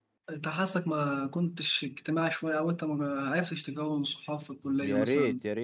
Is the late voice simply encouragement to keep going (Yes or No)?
No